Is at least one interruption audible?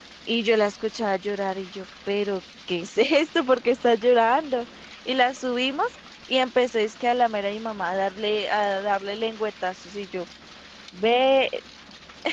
No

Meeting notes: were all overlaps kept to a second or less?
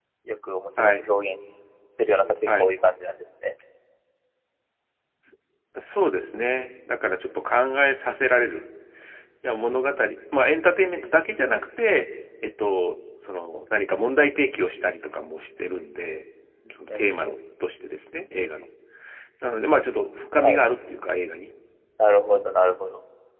Yes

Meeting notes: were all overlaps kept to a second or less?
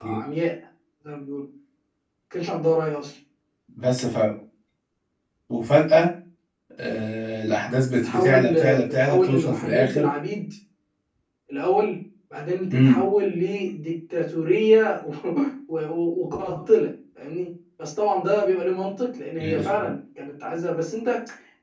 No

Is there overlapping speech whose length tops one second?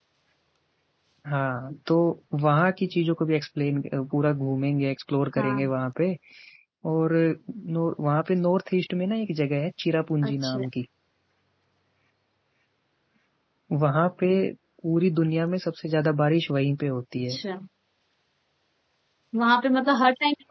No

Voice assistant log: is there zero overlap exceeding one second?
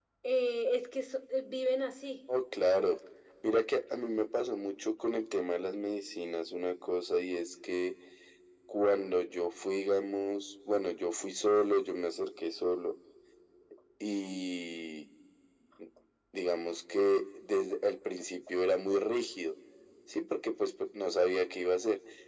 Yes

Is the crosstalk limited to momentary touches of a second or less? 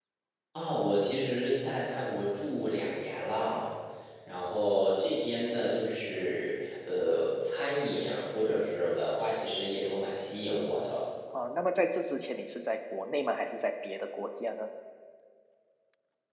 Yes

